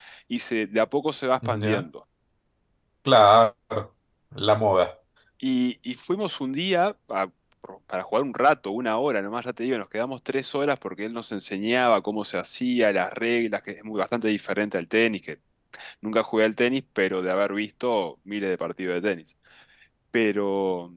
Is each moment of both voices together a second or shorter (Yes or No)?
Yes